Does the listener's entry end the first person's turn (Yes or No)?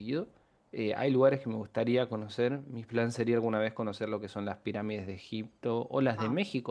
No